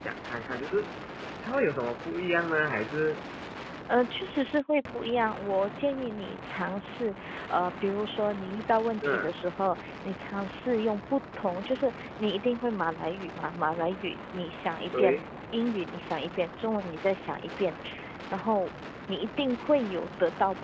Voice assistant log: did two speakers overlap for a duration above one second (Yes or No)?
No